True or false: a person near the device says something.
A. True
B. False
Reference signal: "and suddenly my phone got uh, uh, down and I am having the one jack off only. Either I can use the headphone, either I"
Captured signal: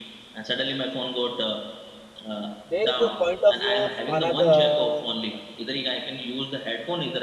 A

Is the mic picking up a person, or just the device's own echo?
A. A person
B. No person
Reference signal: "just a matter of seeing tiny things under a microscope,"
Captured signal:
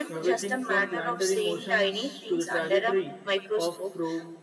A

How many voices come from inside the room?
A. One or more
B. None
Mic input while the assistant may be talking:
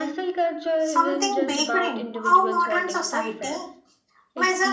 A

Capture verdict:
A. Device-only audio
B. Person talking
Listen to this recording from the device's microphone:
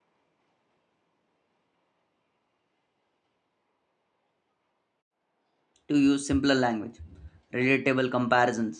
B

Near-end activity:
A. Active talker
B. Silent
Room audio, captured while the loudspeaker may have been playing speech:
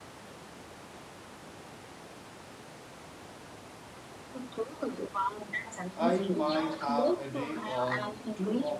A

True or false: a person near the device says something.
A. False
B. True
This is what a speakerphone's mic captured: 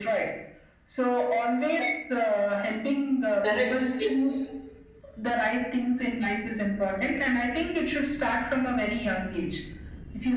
B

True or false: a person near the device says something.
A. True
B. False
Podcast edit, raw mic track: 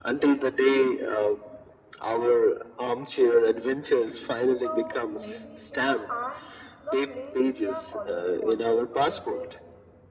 A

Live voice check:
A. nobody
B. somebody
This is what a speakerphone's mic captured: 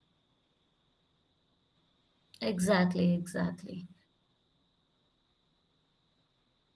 B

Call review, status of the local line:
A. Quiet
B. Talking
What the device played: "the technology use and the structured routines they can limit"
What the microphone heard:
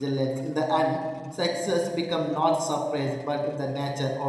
B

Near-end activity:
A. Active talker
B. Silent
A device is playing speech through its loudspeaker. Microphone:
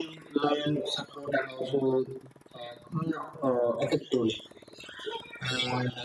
B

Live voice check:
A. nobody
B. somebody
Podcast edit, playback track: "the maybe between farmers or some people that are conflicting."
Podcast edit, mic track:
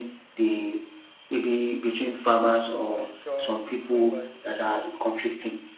B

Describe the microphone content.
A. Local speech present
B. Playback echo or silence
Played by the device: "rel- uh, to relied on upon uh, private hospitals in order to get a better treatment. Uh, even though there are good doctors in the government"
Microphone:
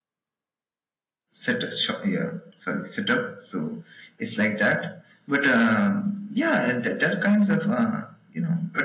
A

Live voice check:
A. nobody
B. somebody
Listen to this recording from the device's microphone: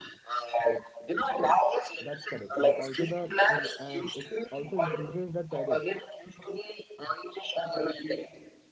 B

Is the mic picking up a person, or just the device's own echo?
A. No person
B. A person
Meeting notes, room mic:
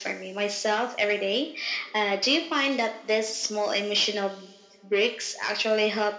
A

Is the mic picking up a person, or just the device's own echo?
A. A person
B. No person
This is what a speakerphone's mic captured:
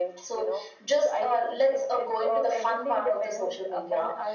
B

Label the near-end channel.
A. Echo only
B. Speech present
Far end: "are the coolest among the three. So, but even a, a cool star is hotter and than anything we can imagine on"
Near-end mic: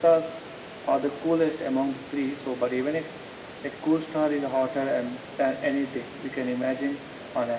A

